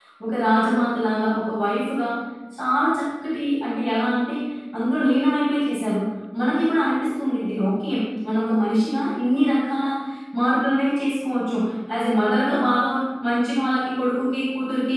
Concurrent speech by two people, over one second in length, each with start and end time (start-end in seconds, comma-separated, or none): none